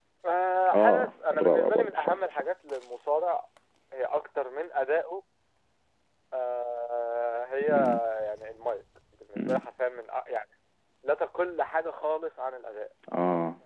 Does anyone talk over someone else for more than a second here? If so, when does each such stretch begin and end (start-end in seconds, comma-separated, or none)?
0.7-2.4